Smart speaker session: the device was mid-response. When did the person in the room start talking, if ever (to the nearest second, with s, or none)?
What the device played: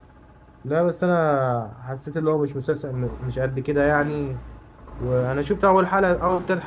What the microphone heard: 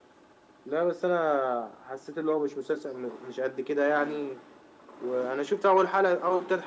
none